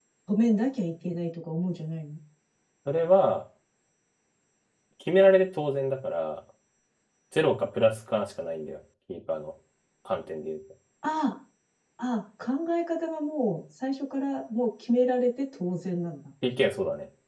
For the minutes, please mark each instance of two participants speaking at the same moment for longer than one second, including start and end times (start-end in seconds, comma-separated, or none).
none